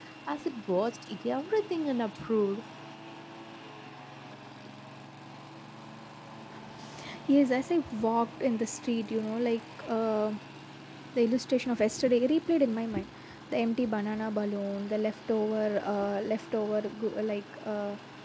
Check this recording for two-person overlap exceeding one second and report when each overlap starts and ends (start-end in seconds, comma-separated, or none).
none